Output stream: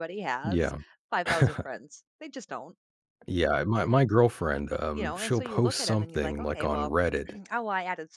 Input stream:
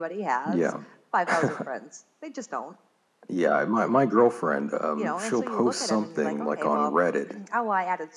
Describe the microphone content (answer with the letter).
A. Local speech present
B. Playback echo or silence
B